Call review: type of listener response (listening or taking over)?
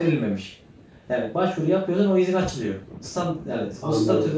listening